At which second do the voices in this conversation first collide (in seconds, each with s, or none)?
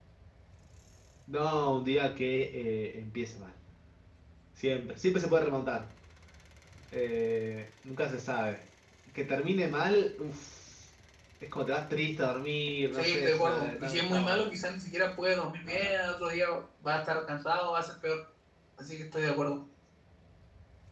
12.9 s